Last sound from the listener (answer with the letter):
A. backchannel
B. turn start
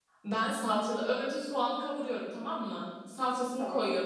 A